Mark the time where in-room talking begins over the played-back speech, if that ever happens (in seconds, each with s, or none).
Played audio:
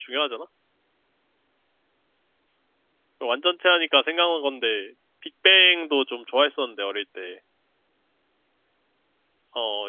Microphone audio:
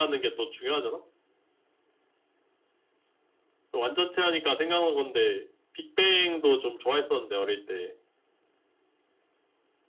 none